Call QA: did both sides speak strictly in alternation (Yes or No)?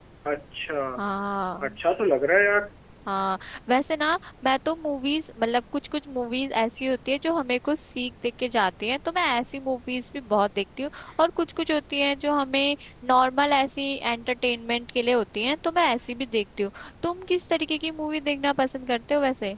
Yes